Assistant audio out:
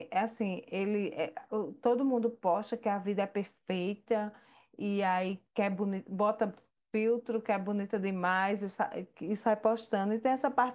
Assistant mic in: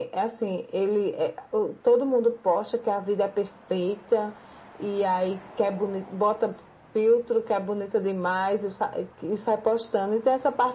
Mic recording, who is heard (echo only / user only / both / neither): echo only